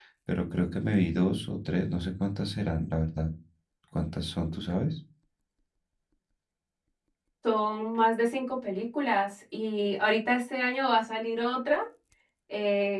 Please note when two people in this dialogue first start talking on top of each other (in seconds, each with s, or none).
none